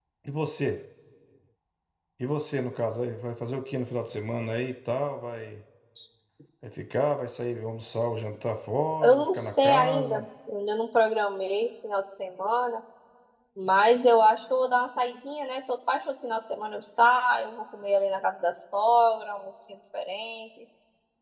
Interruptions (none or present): present